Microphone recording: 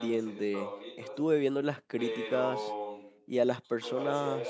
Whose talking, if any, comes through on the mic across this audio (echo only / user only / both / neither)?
both